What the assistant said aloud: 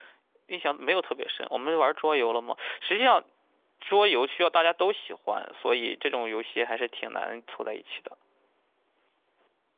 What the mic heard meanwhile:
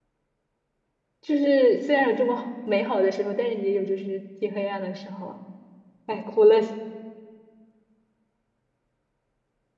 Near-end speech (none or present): present